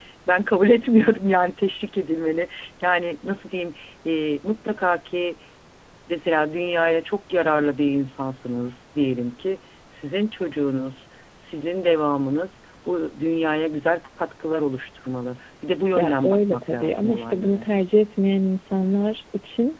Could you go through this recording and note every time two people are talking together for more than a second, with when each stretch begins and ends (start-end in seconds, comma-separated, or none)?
16.0-17.7